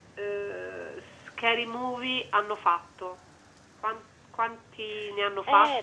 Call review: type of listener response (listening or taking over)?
taking over